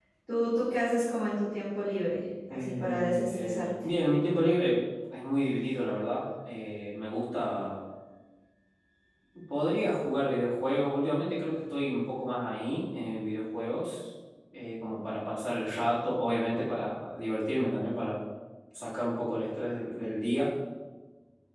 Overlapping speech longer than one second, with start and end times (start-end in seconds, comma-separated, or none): 2.5-3.9